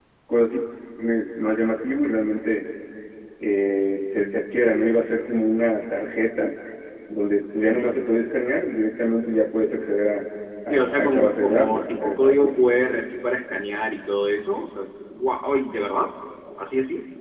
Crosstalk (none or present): present